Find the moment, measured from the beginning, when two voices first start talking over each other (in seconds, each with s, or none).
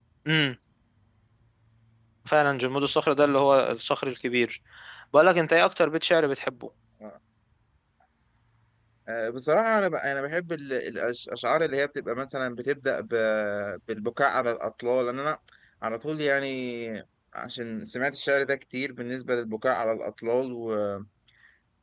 none